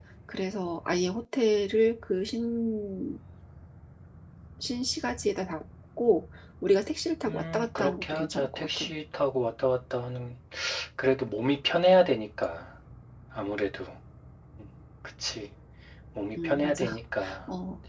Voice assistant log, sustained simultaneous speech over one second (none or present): present